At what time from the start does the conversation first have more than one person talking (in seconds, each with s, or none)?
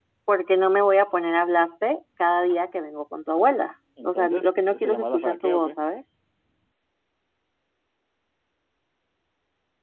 4.0 s